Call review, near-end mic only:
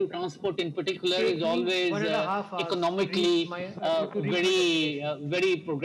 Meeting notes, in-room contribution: present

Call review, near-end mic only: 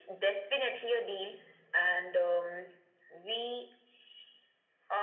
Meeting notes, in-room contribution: none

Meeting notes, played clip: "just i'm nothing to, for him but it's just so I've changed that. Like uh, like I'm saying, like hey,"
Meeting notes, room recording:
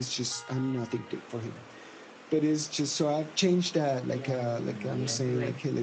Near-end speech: present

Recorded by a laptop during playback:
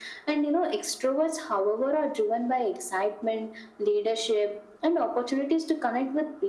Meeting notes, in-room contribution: none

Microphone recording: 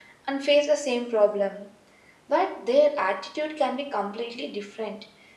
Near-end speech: none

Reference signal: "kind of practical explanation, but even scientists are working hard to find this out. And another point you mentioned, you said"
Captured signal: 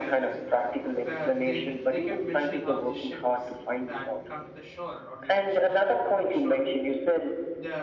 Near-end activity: present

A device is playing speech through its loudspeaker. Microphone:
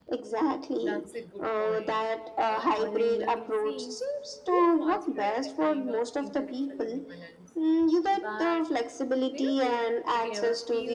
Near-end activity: present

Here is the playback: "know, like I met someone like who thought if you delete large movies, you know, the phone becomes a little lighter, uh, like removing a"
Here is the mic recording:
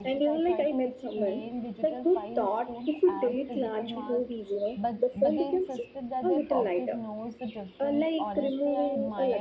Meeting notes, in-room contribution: present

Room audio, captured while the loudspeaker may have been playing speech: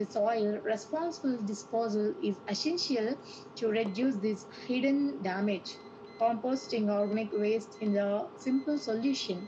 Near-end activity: none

